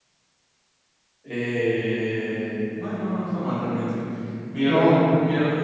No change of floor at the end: Yes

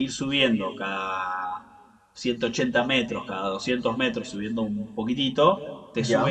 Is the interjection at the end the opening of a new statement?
No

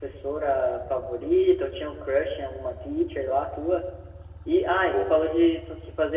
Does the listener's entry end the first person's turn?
No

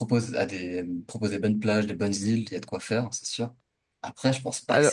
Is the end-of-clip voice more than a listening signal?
No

